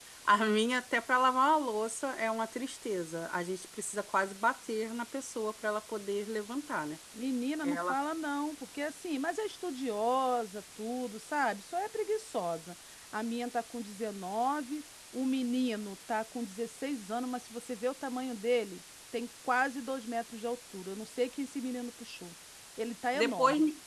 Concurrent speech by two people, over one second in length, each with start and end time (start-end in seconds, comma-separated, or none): none